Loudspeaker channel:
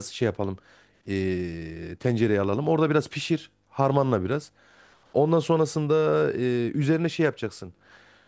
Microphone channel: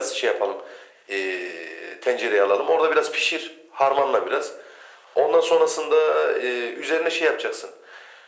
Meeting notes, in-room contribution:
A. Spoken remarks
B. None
B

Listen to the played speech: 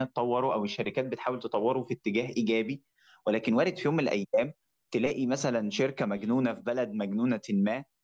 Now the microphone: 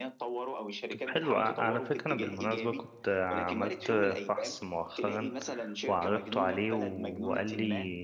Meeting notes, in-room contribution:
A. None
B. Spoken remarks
B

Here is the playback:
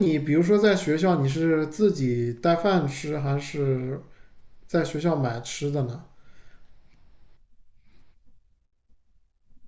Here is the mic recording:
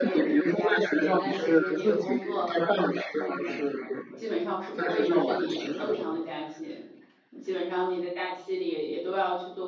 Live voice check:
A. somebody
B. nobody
A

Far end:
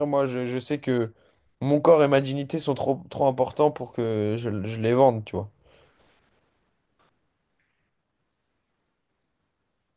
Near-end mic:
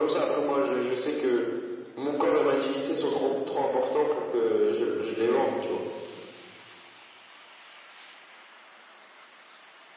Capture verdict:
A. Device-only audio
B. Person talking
A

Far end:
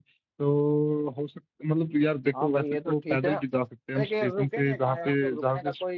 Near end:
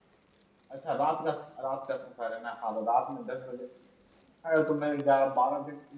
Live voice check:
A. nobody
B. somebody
B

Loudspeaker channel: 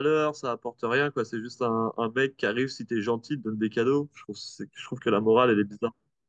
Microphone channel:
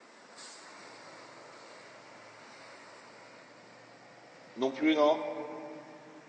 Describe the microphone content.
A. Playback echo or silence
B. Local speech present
B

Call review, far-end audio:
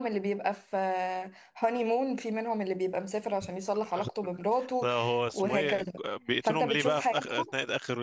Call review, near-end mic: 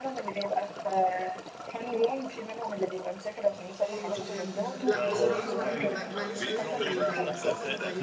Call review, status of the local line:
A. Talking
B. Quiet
A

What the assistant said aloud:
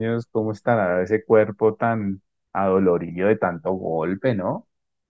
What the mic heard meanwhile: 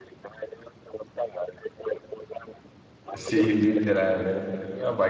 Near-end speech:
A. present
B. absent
A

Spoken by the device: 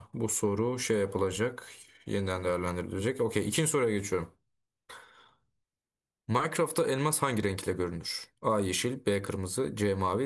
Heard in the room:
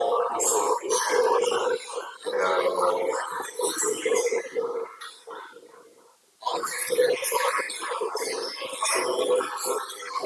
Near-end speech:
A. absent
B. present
A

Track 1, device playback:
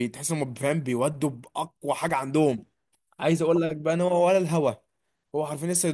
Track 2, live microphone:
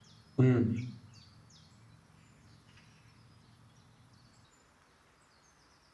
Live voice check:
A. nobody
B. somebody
B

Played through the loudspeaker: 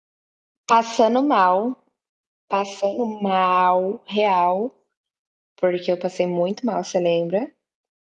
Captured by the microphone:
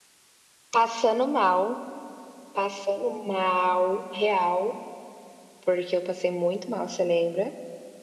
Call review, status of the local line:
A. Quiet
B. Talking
A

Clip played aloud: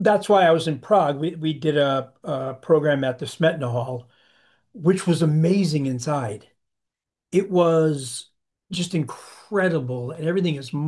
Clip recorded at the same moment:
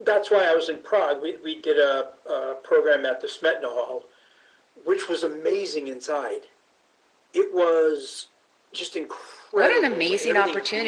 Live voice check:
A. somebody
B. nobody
A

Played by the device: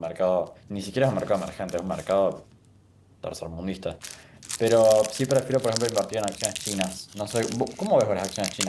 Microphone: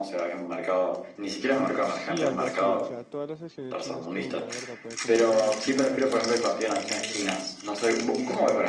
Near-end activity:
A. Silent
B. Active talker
B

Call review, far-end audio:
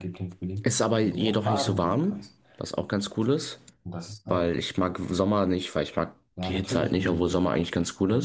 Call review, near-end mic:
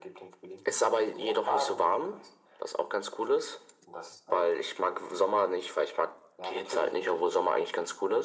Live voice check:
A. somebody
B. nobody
B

